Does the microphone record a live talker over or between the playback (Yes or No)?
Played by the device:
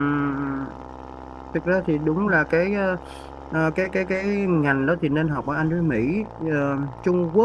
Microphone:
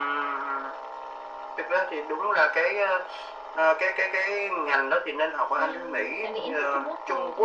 Yes